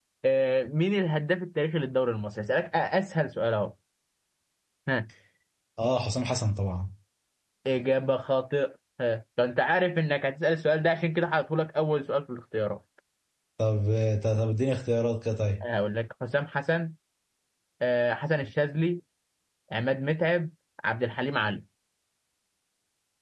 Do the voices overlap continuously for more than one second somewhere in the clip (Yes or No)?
No